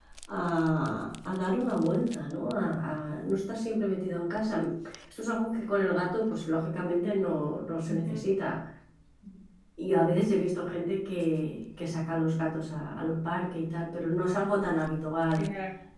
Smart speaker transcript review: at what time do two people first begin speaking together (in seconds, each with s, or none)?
7.0 s